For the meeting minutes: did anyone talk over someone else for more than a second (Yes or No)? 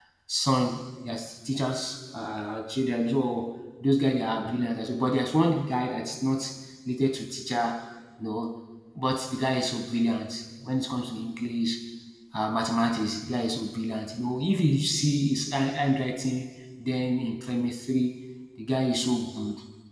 No